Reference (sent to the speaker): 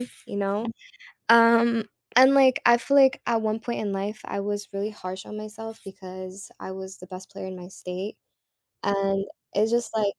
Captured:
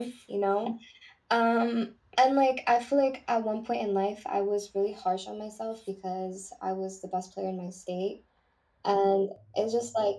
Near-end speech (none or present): none